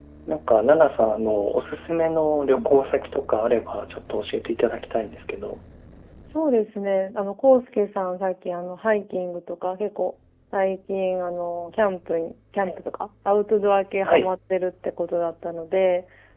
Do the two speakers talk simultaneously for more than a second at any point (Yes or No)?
No